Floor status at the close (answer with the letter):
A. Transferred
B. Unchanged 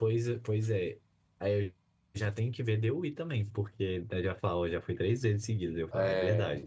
A